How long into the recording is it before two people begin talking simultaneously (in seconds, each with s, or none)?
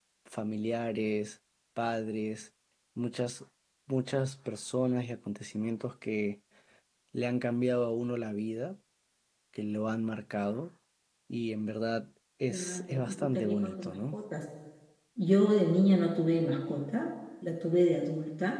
12.5 s